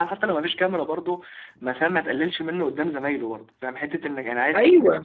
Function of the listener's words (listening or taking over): listening